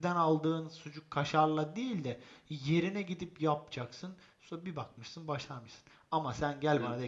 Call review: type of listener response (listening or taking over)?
listening